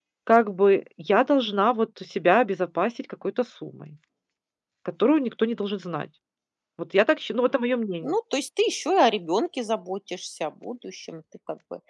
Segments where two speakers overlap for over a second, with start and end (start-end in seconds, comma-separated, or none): none